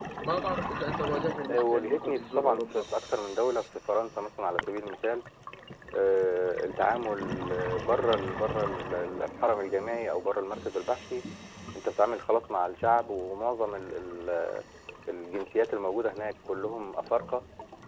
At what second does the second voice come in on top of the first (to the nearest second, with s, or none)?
1 s